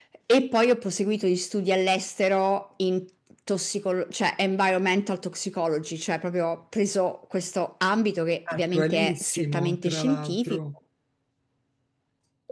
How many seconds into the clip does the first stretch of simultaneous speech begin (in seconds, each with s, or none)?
8.5 s